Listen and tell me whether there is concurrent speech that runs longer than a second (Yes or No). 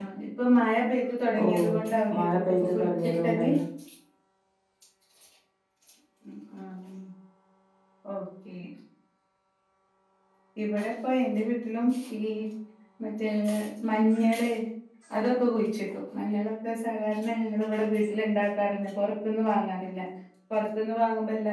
Yes